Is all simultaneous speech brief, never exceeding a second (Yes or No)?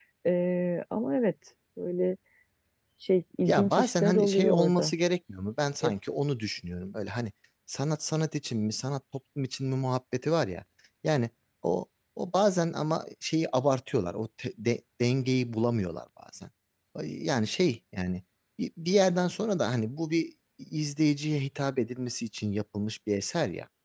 No